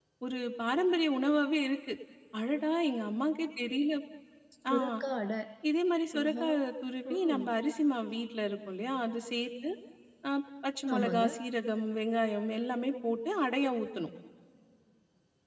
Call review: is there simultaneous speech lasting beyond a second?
No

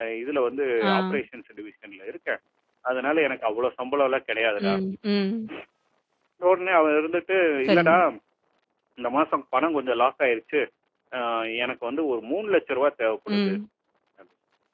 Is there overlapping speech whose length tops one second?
No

